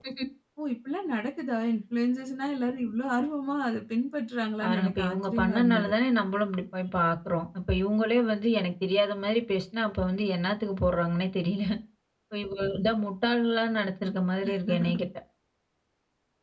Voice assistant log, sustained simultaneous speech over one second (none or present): present